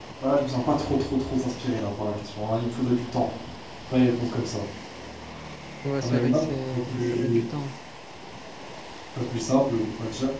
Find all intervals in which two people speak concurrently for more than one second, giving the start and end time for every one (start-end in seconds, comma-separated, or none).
6.0-7.5